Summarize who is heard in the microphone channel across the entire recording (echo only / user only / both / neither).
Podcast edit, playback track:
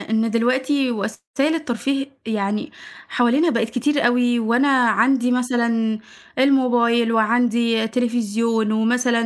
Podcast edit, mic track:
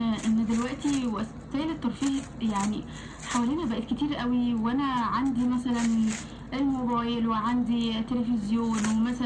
echo only